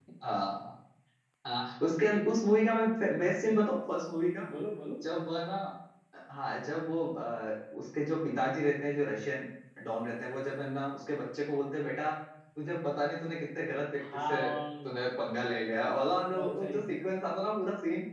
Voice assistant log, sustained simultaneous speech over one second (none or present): none